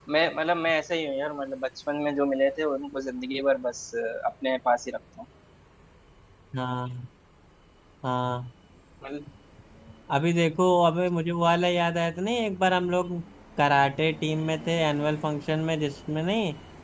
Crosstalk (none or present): none